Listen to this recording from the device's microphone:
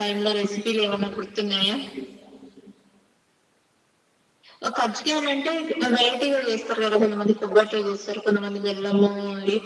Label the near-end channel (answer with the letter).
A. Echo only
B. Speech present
A